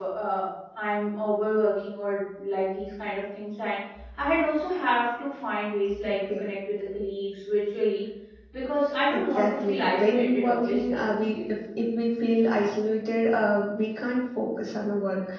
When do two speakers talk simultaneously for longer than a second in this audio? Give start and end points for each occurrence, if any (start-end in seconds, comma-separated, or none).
9.0-11.0